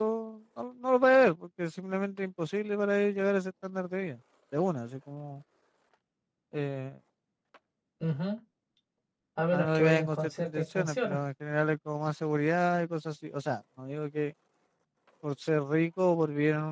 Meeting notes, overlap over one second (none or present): present